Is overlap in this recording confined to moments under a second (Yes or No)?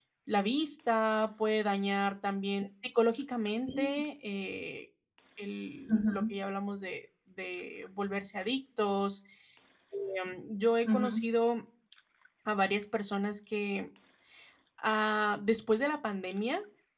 Yes